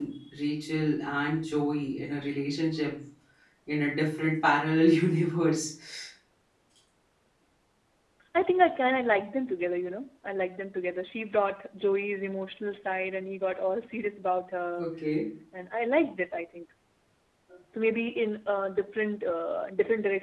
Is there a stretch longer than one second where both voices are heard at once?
No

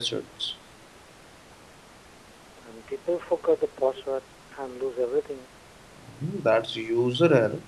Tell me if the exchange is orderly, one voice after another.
Yes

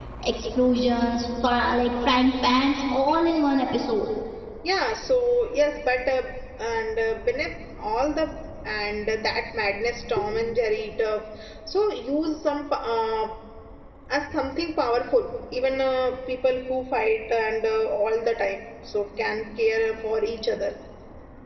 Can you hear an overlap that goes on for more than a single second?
No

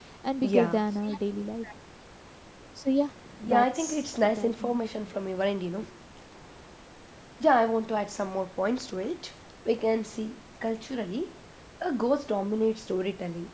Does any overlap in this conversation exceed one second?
Yes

